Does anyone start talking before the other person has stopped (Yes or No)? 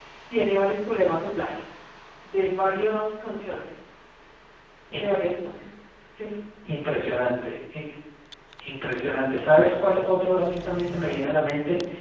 No